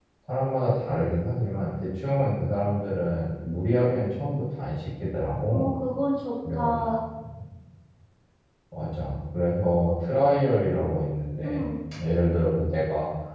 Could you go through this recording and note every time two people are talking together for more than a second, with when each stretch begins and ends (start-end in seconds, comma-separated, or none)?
none